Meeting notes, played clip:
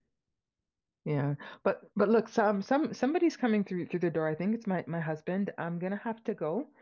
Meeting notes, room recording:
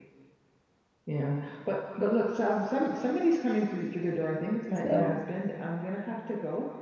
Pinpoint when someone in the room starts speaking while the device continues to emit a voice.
4.7 s

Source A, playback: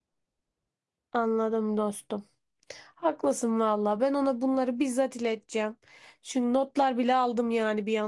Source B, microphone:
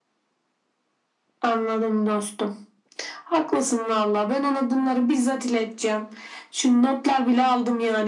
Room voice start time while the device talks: none

